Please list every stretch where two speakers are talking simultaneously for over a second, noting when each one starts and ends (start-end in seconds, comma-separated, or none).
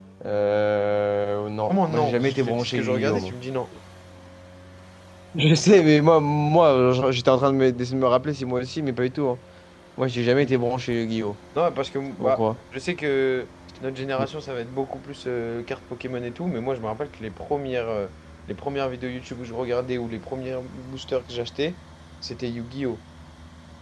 1.7-3.4